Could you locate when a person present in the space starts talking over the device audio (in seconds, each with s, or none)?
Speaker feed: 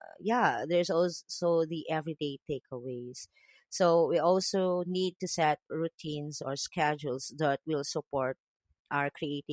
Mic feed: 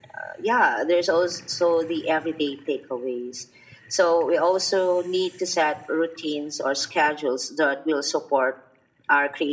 none